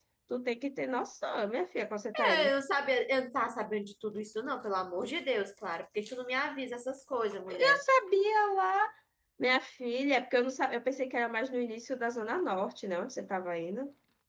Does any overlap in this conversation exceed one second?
No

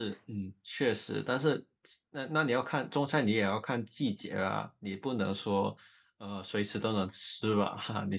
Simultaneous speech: No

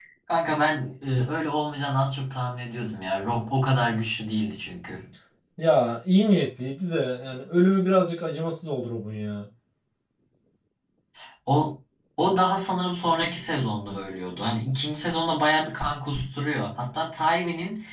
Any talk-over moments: No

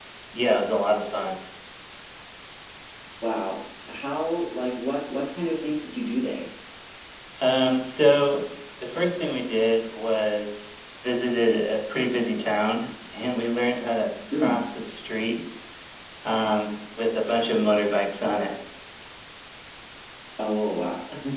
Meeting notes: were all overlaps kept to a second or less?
Yes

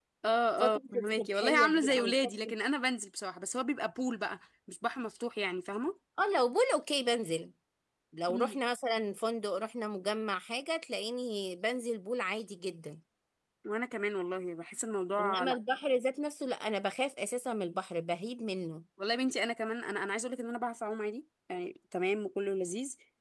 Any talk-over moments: Yes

